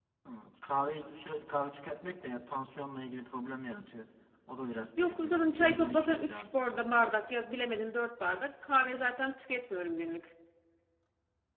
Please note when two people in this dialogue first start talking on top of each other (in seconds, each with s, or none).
5.0 s